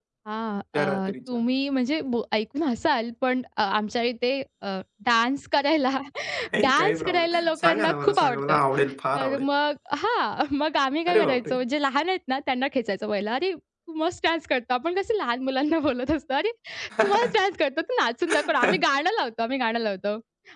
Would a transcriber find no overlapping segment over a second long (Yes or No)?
No